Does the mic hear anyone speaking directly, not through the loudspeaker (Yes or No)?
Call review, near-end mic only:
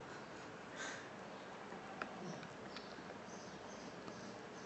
No